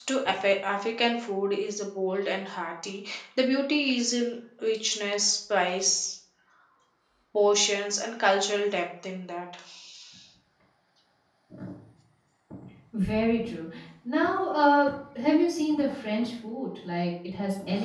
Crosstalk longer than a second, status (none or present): none